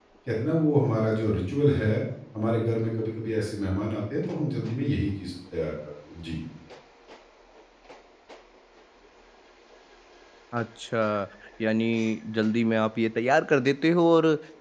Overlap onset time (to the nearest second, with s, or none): none